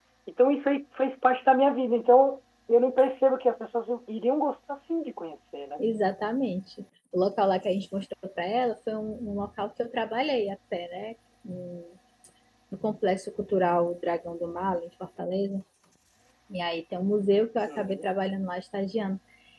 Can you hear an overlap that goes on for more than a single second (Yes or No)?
No